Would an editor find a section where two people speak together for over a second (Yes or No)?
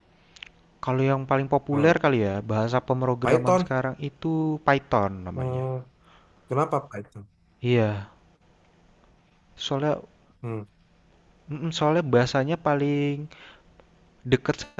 No